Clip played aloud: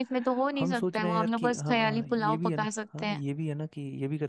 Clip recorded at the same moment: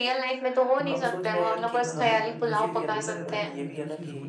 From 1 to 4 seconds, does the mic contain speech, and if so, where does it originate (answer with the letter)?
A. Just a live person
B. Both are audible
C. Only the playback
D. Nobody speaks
B